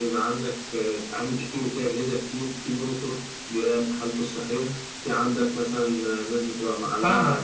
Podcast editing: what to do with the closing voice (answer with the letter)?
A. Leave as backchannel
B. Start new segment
B